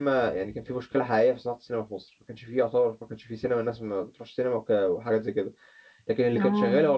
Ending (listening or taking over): listening